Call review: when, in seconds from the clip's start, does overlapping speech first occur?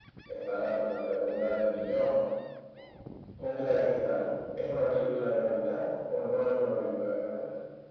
none

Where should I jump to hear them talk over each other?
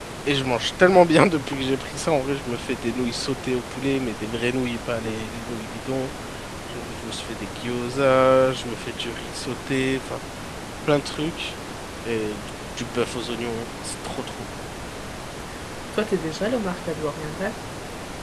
none

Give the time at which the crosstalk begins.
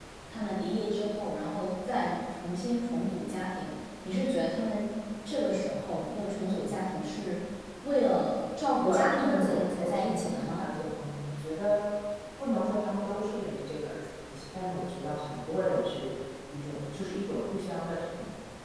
8.8 s

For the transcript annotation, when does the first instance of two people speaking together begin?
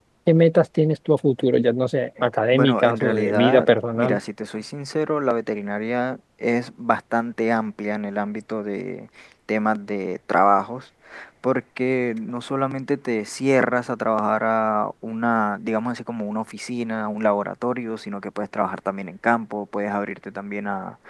2.5 s

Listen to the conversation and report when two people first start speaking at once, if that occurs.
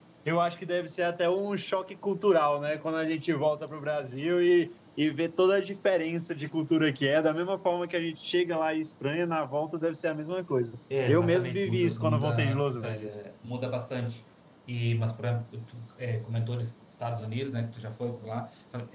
10.9 s

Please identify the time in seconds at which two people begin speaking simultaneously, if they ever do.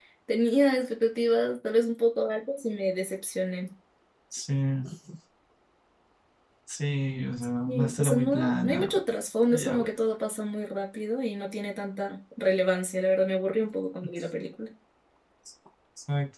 7.7 s

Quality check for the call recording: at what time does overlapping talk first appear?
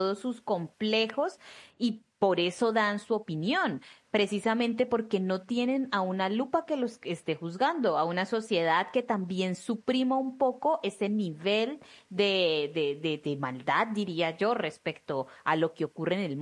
none

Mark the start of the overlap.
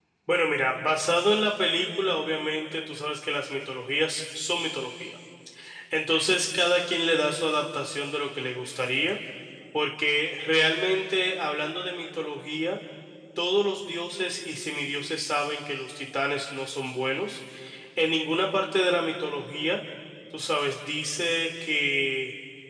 none

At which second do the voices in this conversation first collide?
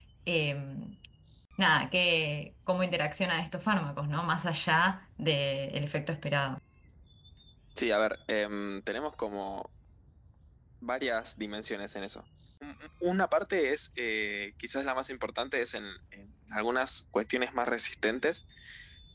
none

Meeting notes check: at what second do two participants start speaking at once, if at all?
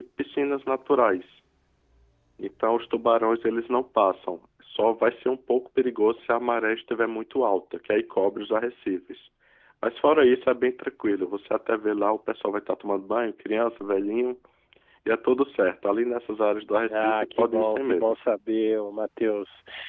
16.9 s

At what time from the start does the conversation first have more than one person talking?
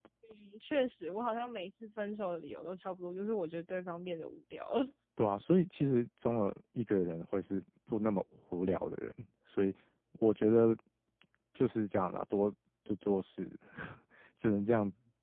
none

